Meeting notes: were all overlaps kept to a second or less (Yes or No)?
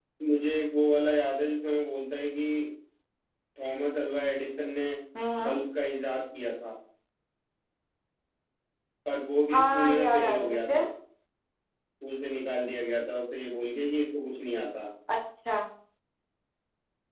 No